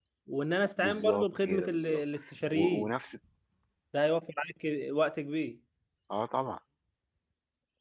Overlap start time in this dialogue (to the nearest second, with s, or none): 1 s